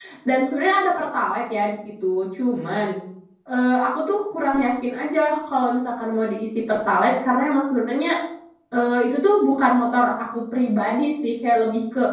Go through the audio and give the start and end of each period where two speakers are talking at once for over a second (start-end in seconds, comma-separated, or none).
none